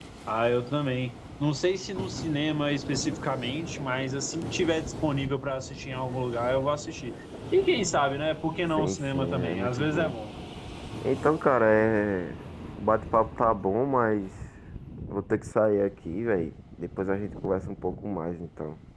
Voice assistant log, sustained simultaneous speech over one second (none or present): present